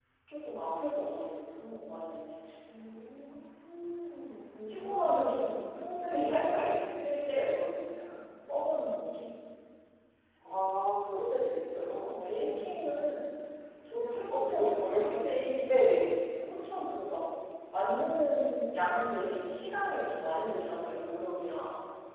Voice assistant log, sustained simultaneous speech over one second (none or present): present